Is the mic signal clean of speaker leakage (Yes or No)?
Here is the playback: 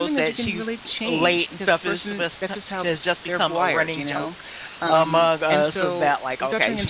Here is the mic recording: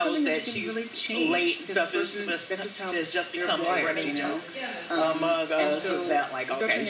No